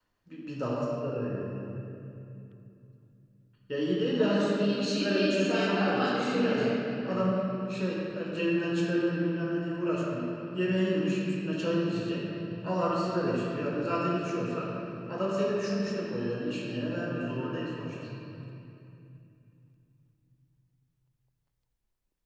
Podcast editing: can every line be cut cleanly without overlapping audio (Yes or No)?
No